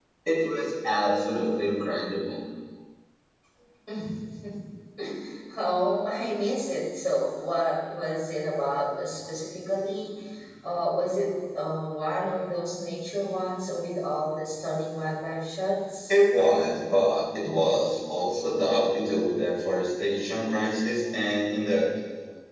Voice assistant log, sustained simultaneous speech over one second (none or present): none